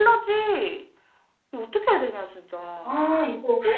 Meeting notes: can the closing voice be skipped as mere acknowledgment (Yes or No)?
Yes